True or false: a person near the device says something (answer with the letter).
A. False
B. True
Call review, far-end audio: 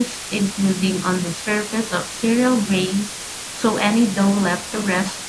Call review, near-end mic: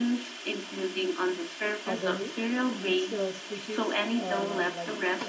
B